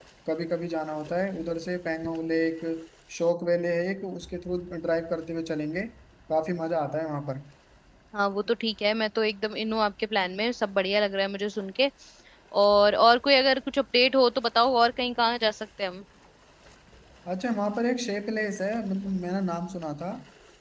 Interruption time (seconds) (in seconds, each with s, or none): none